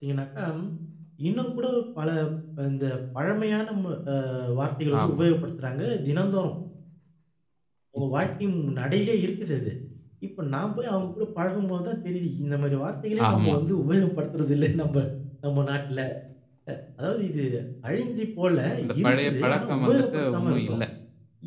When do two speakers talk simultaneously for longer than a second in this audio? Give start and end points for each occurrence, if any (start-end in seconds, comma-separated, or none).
19.0-20.8